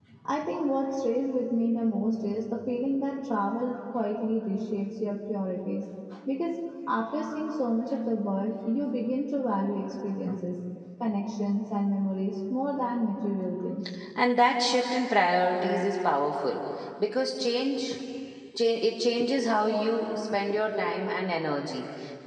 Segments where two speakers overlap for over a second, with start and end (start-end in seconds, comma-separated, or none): none